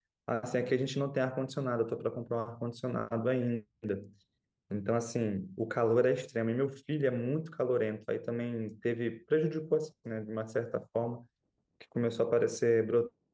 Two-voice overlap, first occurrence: none

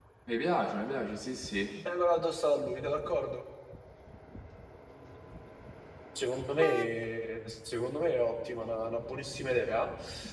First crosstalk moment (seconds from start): none

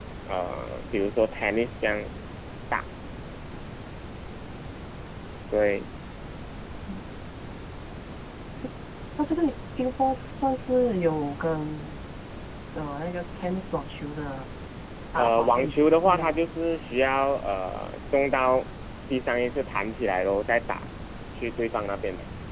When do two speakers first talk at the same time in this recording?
15.2 s

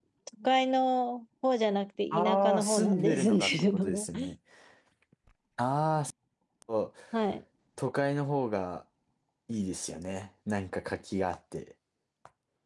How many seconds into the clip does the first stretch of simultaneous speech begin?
2.1 s

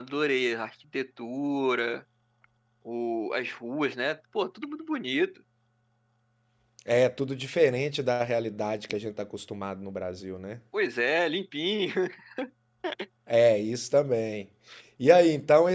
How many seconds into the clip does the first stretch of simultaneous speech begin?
none

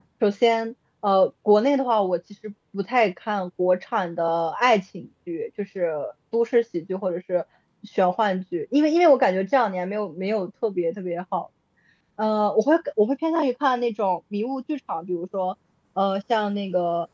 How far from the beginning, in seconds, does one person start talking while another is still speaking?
none

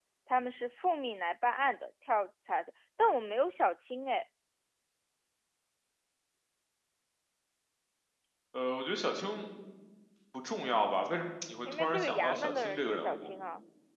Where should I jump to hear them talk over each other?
11.7 s

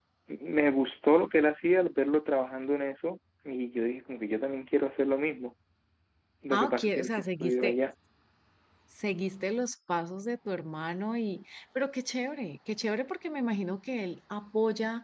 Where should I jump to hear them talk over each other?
6.5 s

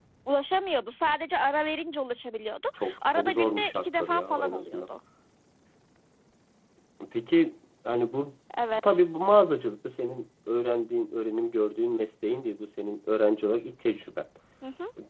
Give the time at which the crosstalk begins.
2.8 s

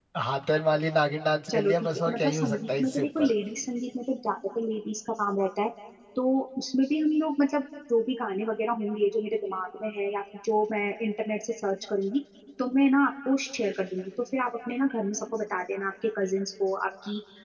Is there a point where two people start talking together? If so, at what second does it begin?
1.5 s

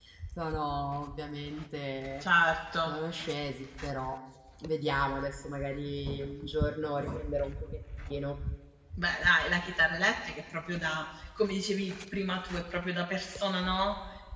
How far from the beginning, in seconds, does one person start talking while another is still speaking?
none

